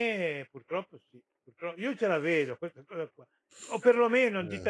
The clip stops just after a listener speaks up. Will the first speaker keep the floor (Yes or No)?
Yes